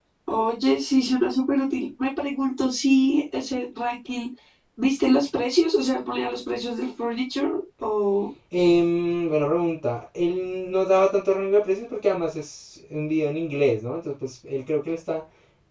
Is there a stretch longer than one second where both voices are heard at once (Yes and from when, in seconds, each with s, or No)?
No